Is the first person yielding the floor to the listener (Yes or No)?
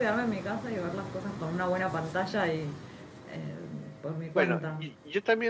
Yes